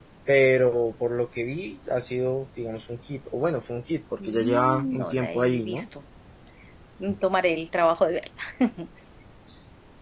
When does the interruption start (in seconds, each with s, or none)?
4.2 s